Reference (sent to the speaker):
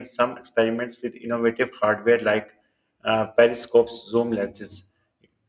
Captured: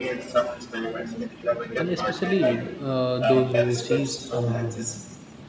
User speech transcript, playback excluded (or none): and especially uh, those who see um,